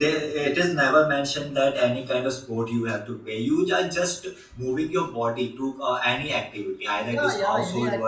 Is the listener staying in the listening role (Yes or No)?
No